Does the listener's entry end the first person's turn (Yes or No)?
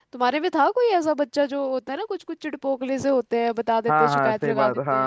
Yes